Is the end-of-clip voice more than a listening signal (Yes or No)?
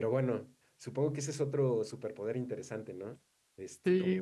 Yes